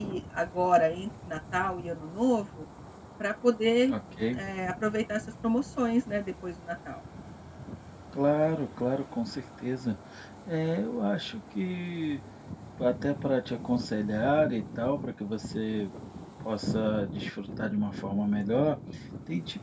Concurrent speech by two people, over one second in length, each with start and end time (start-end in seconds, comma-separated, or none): none